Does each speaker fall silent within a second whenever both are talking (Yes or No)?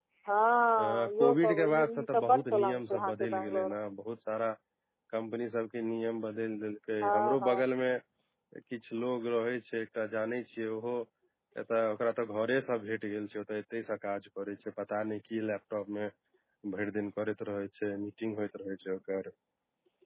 No